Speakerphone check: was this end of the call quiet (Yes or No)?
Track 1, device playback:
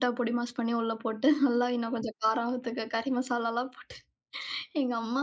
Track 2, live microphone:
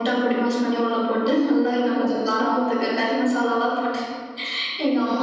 Yes